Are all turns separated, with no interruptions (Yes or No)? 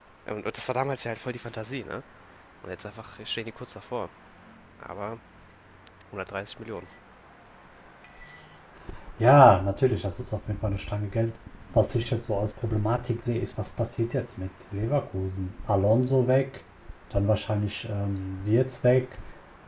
Yes